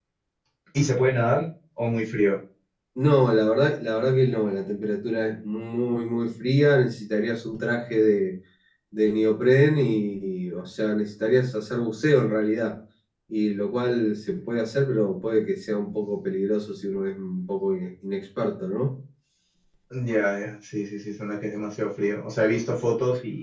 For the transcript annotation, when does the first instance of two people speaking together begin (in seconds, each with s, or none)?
none